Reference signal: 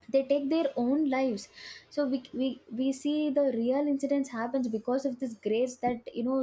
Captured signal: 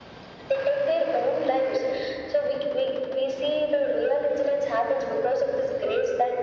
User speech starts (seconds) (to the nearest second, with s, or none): none